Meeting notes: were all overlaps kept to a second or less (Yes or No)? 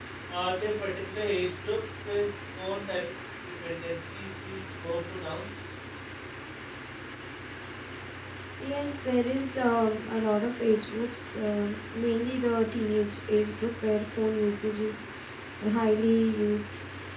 Yes